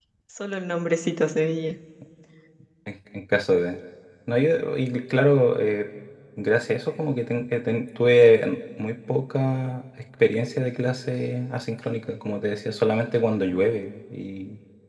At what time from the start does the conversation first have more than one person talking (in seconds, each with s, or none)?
none